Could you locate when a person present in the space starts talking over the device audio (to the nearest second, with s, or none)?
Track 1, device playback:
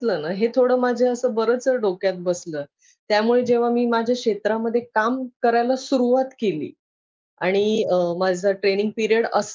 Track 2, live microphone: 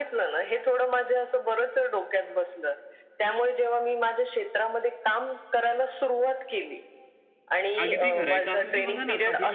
8 s